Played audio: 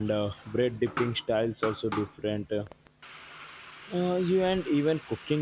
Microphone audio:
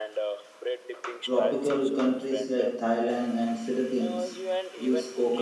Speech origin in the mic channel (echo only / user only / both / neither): both